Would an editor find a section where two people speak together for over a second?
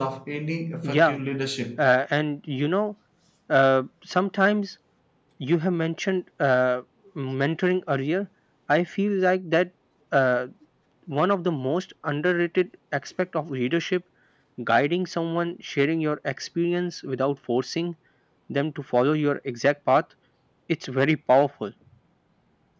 No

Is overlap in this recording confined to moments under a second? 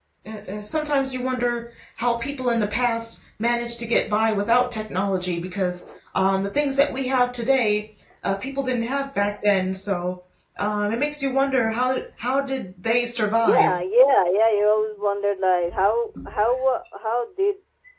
Yes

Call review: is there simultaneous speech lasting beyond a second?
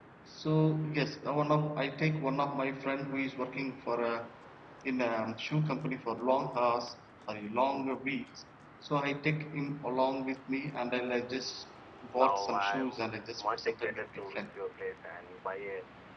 Yes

